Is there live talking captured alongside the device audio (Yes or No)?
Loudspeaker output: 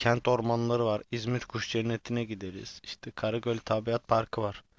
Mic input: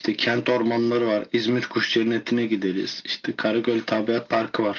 No